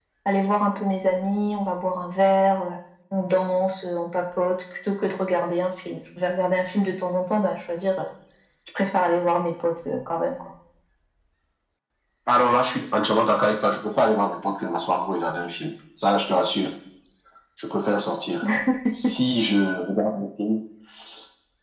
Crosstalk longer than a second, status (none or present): none